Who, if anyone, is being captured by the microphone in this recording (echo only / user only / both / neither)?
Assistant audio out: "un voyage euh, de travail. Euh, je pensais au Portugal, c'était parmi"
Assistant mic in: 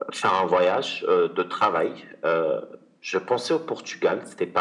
echo only